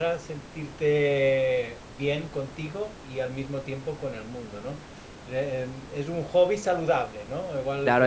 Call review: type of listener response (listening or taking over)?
taking over